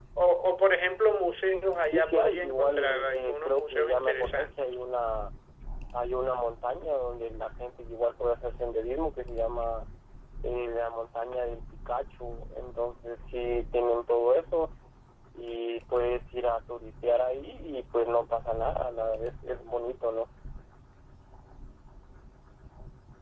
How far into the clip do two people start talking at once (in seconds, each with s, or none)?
1.9 s